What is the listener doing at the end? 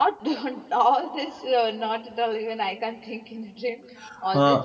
listening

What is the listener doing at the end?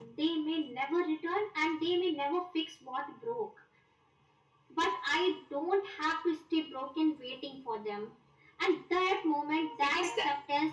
listening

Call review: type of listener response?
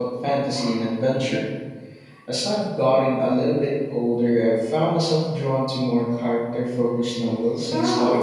taking over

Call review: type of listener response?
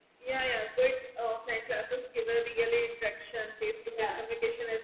listening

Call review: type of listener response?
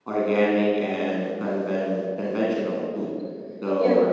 taking over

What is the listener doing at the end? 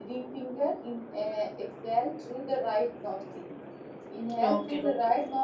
listening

